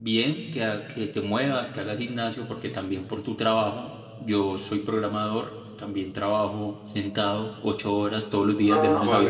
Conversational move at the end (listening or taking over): taking over